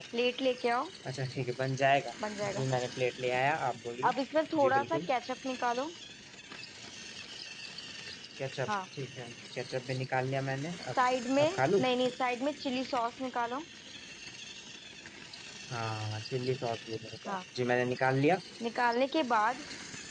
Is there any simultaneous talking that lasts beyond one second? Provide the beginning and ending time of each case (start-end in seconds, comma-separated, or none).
none